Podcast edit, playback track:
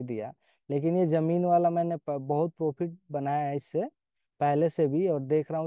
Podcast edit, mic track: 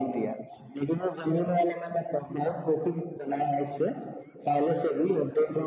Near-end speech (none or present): none